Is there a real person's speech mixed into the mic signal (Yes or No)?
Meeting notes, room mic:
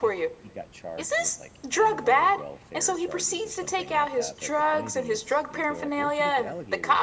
Yes